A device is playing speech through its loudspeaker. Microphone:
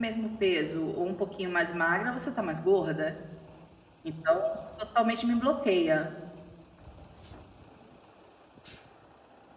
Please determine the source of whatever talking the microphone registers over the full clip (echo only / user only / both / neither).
user only